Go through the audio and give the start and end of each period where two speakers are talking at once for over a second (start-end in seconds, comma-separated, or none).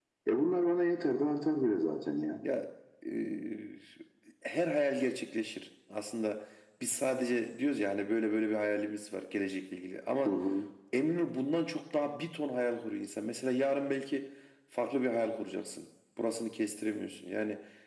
none